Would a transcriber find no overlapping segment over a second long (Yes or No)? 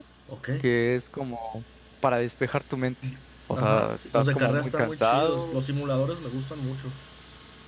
No